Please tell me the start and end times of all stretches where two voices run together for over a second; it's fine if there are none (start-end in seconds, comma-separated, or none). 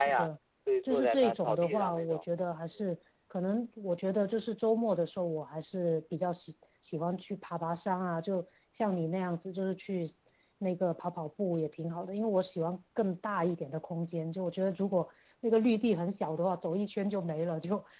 0.9-2.2